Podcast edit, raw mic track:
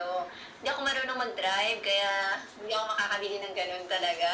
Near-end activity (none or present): none